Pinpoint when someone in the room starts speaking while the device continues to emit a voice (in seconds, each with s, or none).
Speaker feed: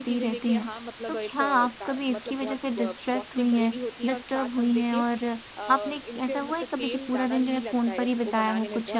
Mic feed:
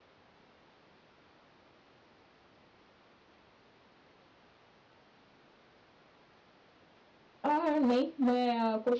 7.4 s